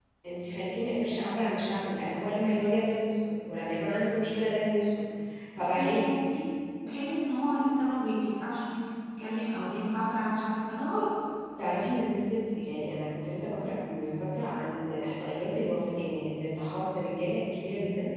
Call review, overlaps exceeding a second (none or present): none